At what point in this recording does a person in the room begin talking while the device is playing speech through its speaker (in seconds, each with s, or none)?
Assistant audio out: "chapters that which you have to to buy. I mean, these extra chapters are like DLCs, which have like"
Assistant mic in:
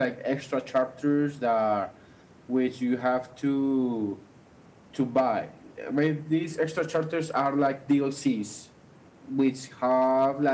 none